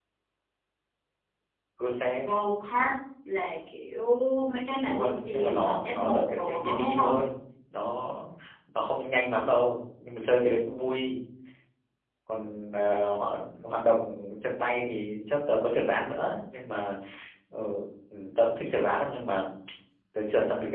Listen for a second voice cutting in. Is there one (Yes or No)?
Yes